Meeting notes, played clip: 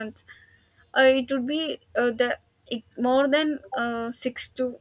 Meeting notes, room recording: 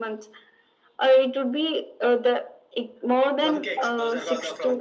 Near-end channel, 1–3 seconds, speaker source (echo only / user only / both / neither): echo only